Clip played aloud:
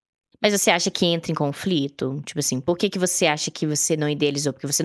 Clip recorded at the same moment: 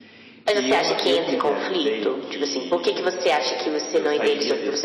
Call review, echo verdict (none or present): present